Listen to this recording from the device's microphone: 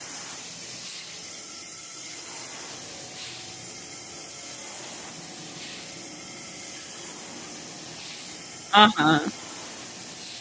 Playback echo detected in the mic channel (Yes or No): No